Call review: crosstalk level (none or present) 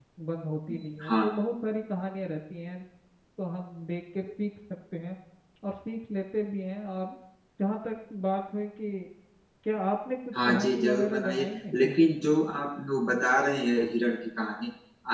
present